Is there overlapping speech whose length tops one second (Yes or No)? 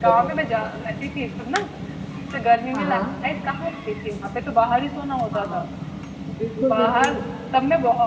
No